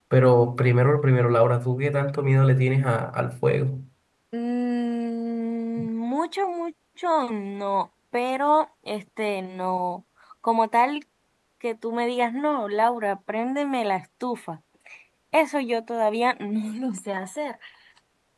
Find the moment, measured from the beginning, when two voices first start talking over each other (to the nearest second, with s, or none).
none